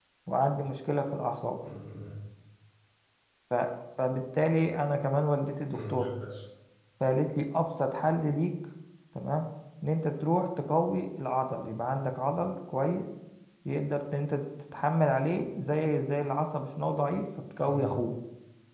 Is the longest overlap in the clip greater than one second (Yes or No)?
No